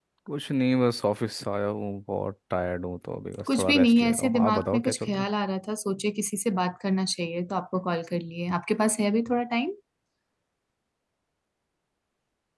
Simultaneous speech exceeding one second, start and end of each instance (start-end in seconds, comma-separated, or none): 3.5-5.2